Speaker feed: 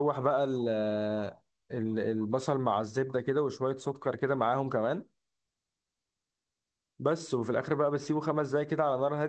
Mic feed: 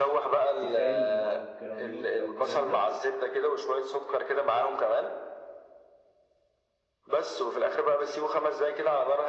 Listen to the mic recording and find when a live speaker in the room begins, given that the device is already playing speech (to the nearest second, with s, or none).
1 s